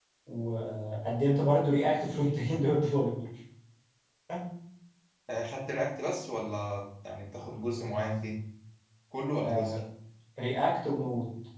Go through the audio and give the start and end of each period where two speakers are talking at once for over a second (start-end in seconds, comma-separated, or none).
none